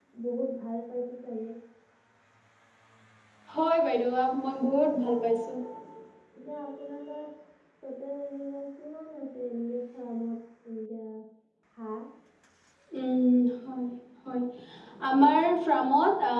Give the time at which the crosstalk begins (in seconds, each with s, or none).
none